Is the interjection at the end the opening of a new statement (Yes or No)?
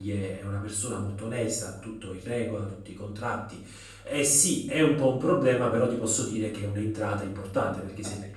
No